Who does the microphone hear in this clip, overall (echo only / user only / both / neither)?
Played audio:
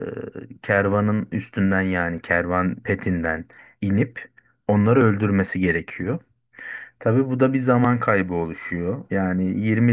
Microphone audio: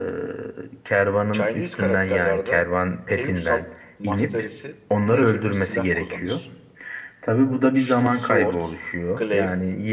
both